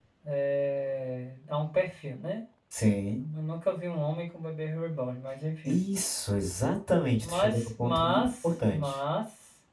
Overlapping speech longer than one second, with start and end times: 7.2-8.9

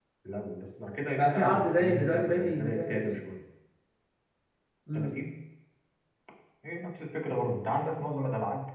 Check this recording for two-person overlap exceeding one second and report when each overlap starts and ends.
1.2-3.2

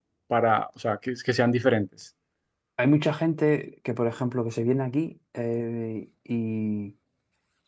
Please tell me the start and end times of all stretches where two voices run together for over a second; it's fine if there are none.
none

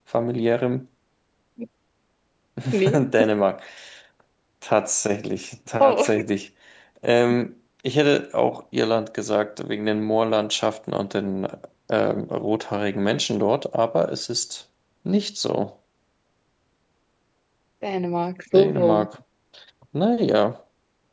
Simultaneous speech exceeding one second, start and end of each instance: none

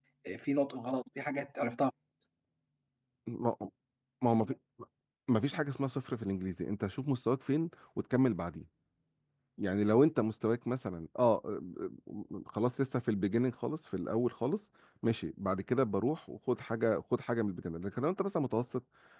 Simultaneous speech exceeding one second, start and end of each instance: none

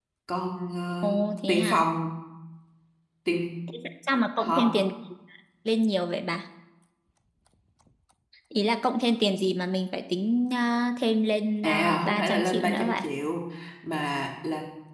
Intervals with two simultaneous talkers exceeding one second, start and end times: 11.6-13.0

